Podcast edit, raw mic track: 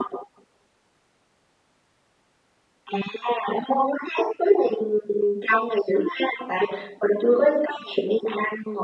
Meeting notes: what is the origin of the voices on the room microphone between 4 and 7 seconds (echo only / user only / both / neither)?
echo only